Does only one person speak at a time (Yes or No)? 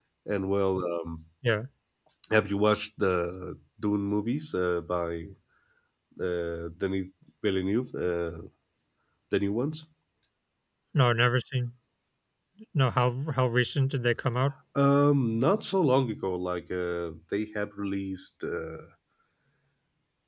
Yes